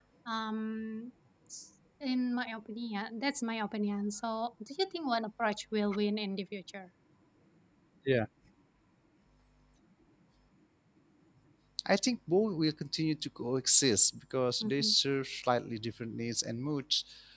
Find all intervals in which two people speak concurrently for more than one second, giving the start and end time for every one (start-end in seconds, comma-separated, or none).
none